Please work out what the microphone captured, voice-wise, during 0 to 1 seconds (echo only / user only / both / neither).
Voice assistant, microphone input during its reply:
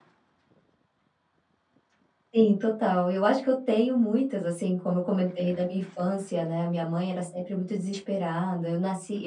neither